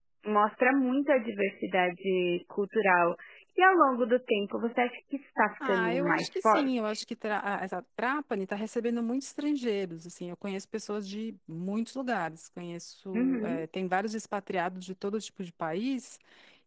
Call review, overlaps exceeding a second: present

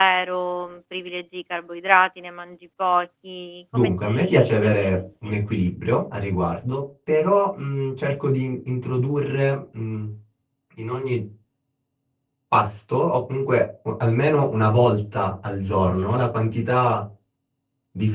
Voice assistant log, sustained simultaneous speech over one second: present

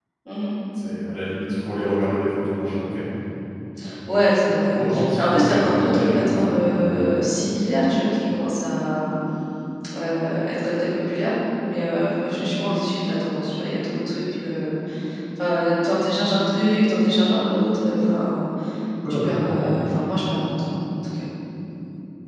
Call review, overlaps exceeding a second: present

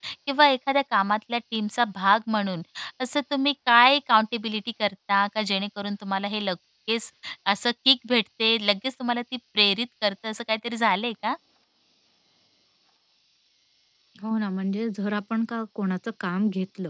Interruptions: none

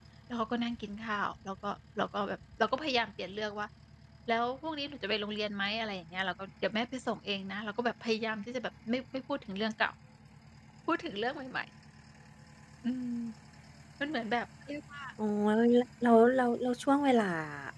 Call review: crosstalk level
none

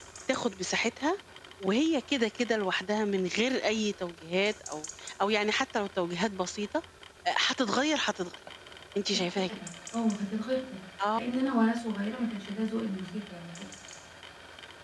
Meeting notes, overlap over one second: none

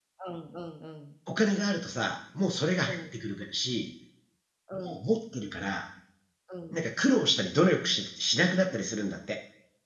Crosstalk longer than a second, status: none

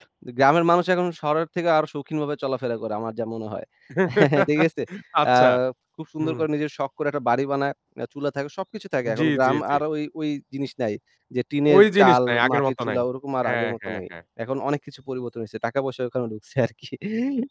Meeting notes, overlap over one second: present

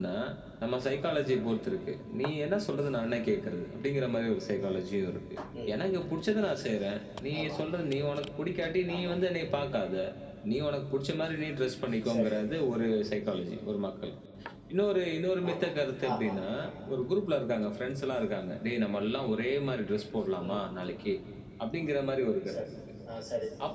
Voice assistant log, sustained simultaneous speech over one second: none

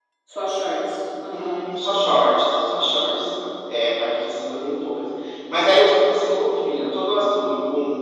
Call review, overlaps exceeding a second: none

